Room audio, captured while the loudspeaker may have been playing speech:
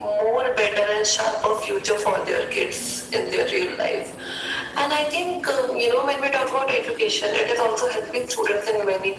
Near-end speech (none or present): none